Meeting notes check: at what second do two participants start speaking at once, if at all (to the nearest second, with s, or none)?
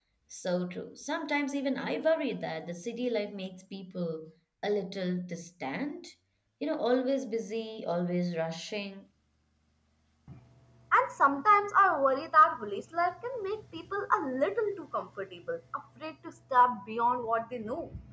none